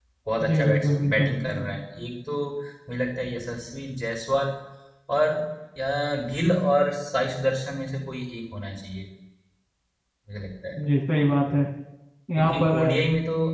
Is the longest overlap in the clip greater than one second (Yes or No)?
Yes